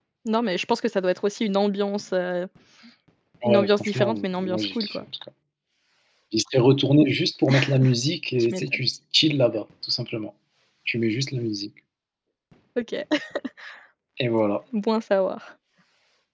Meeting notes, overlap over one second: present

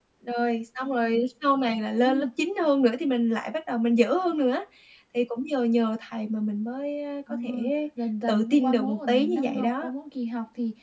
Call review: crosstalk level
present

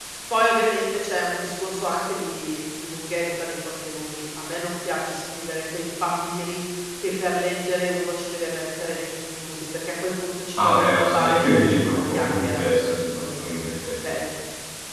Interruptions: present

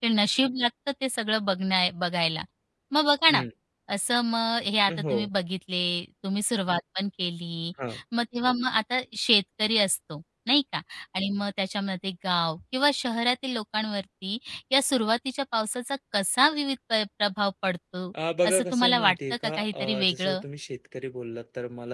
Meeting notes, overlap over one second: present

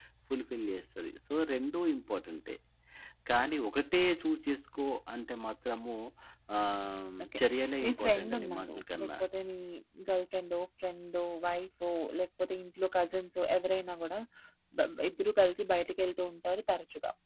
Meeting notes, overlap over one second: present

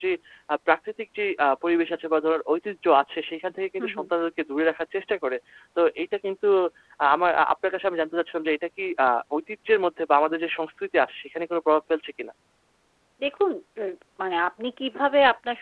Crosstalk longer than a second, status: none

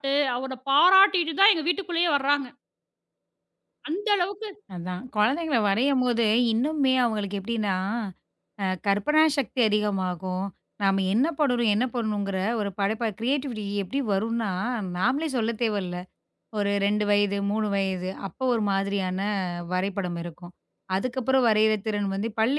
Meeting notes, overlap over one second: none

